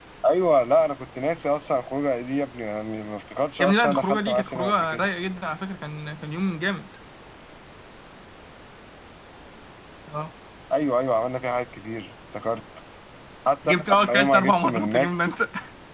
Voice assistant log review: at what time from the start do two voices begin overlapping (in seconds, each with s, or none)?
3.6 s